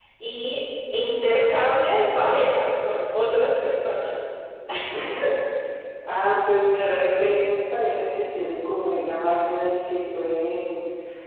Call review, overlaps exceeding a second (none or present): none